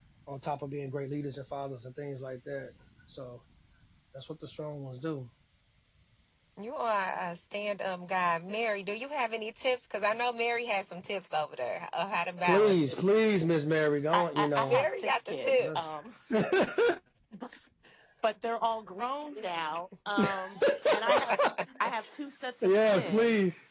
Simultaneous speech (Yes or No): Yes